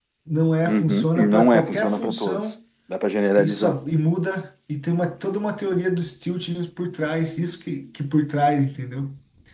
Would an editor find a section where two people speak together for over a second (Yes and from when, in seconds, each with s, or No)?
Yes, from 0.7 s